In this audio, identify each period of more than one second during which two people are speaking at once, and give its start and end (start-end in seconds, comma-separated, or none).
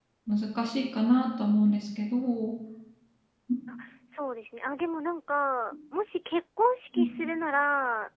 none